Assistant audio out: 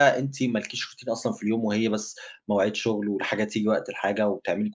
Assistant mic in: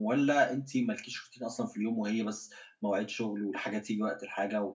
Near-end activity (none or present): none